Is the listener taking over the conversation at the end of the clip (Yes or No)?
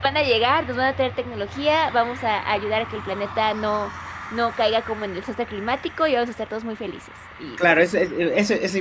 Yes